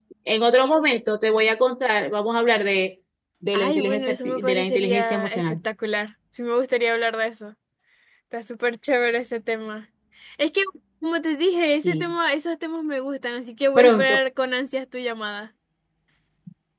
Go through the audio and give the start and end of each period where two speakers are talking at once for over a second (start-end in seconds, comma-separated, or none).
3.5-5.6